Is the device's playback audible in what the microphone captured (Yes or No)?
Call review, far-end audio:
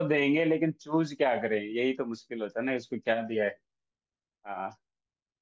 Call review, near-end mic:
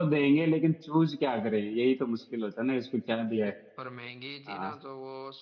Yes